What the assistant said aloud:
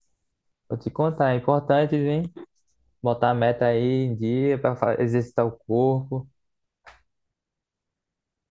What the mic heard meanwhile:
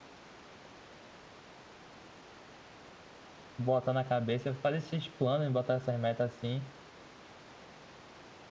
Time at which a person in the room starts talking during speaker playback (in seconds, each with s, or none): 3.6 s